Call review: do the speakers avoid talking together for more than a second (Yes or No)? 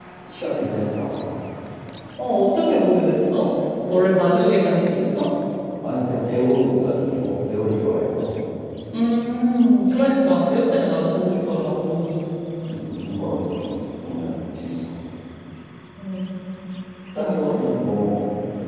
Yes